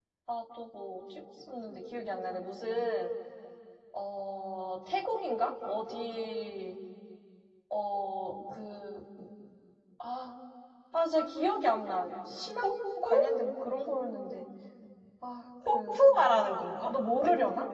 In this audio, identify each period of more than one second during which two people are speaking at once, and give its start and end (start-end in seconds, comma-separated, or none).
none